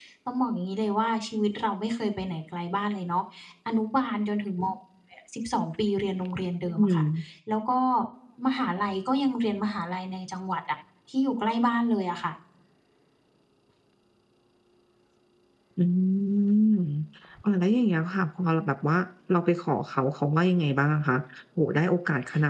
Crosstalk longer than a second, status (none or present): none